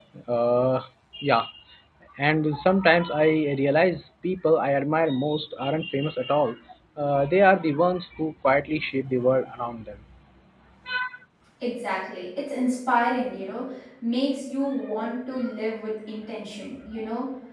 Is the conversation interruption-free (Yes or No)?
Yes